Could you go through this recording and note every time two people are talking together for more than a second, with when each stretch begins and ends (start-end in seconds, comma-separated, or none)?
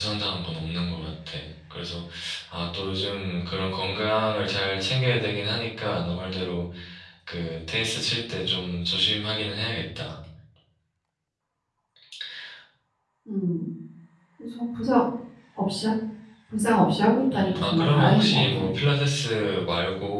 17.3-18.6